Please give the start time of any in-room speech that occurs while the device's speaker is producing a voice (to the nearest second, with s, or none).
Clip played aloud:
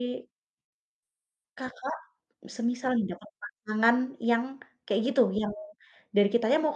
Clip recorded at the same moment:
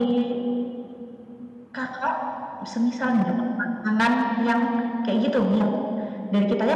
none